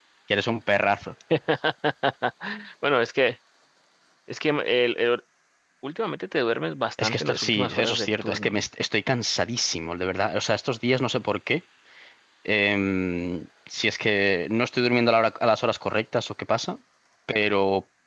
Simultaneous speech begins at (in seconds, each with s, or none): 7.0 s